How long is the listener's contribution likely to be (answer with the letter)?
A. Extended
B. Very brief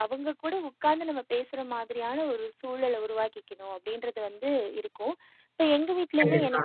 B